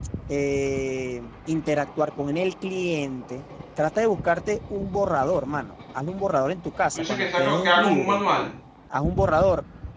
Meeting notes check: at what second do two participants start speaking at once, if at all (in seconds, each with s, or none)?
7.0 s